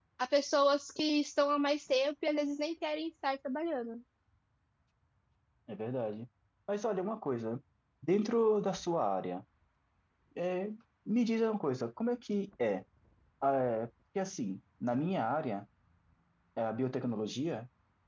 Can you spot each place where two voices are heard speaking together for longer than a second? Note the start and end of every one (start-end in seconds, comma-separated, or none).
none